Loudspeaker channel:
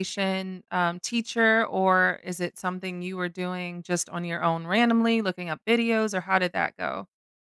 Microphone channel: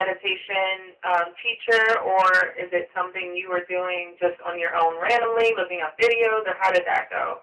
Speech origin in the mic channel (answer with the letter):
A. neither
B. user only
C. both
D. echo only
D